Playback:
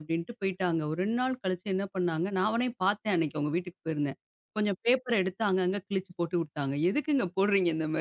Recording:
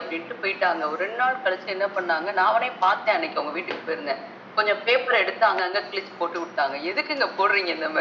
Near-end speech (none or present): none